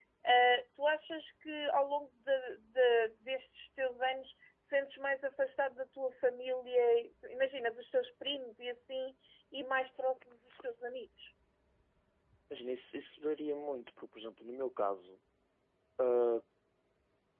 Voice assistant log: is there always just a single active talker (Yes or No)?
Yes